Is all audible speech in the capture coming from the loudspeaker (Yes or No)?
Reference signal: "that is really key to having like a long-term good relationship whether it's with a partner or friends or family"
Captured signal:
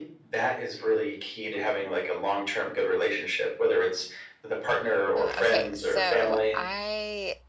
No